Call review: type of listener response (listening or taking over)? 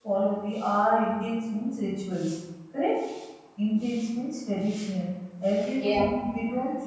listening